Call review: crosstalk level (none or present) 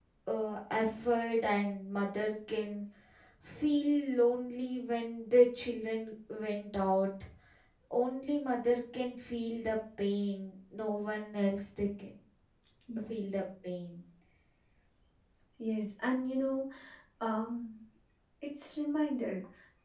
none